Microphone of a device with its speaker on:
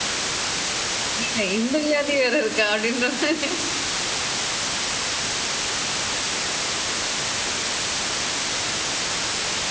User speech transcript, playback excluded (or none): இல்ல. இந்த வியாதி வேற இருக்கா அப்படின்ற மாரி.